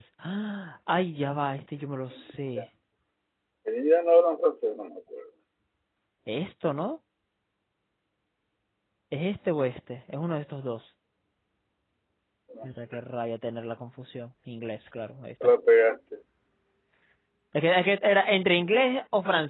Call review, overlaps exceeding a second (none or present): none